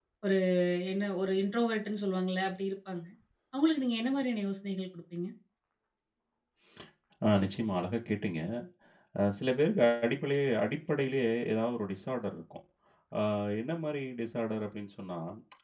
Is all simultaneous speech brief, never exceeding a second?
Yes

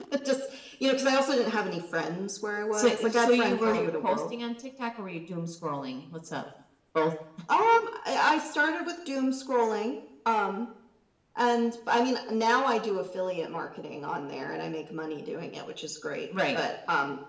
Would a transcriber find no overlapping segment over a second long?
No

